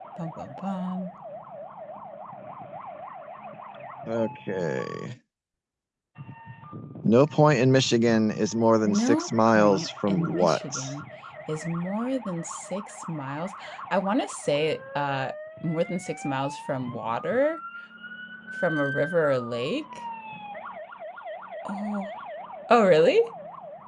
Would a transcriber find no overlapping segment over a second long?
No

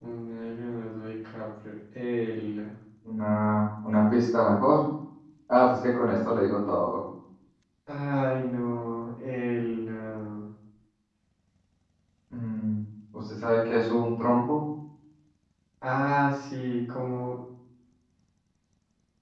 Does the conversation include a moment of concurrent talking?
No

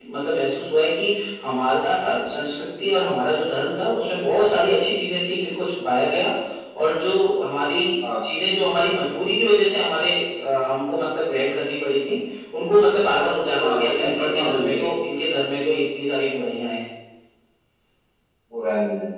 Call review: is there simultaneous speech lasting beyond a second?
Yes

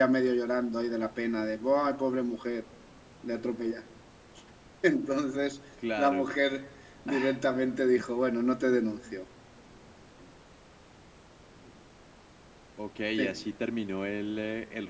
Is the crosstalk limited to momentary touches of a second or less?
Yes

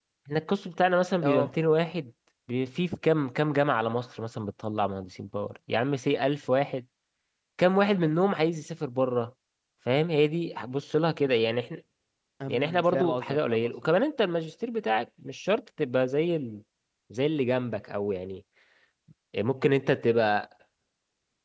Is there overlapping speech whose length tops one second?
Yes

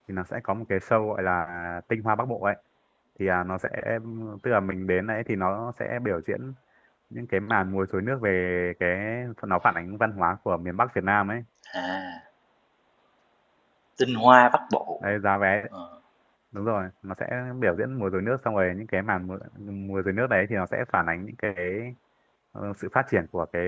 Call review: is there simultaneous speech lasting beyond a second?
No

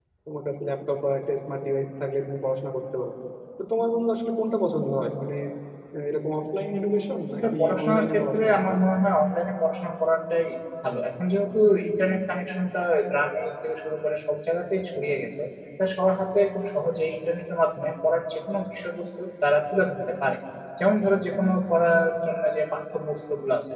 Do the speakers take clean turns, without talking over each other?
No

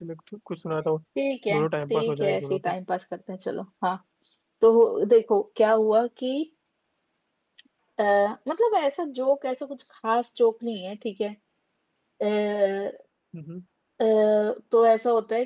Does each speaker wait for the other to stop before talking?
No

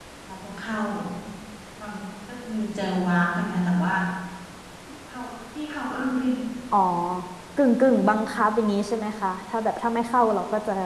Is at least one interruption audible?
No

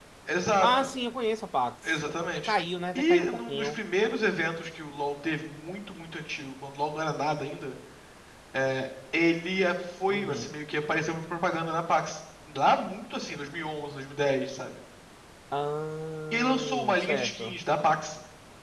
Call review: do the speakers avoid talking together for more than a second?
No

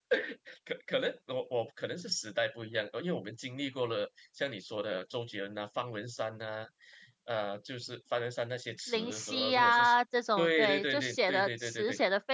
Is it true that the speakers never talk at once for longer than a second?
No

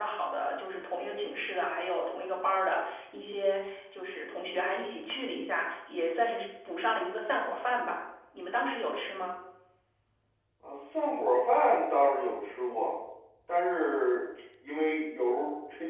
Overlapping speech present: No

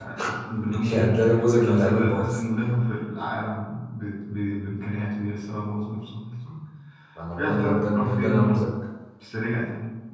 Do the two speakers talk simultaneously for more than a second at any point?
Yes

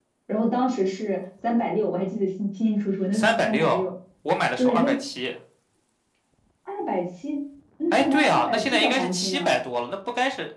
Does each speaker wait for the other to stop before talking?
No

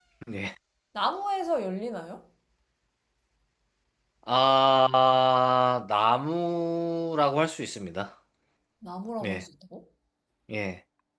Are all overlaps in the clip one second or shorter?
Yes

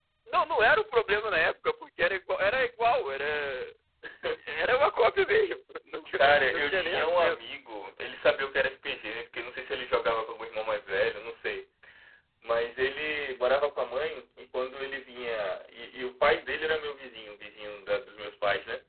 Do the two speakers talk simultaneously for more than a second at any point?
Yes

